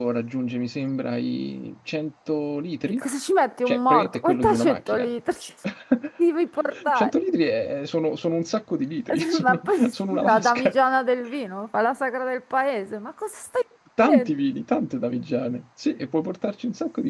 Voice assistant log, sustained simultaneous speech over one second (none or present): present